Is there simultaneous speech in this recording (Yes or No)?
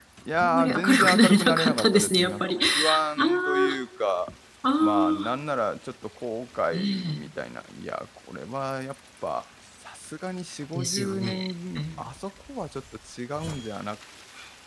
Yes